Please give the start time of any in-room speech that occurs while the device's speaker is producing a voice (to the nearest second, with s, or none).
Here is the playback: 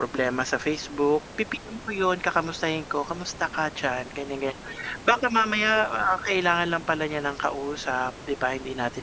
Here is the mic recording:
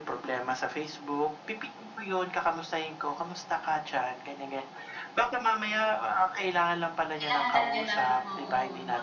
7 s